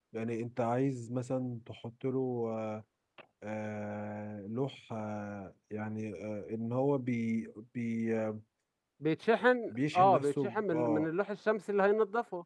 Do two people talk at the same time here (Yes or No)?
Yes